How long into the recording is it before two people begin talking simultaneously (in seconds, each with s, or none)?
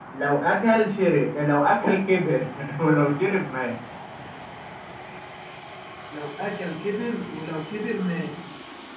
none